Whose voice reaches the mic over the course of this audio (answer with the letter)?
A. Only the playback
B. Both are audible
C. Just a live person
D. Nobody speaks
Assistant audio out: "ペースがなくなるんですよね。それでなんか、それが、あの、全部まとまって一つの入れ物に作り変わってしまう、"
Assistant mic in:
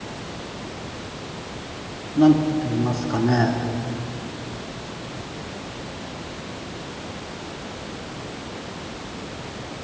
C